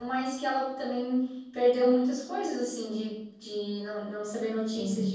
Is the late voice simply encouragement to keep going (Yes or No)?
Yes